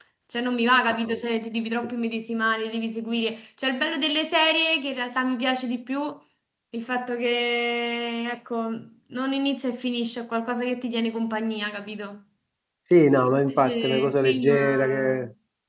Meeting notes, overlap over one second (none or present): present